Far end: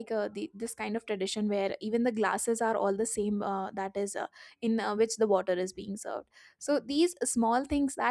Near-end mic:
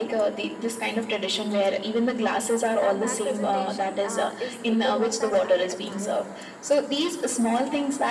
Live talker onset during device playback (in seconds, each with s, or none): 2.8 s